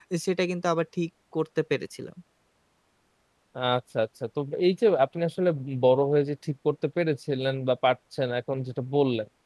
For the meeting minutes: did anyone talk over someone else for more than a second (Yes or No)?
No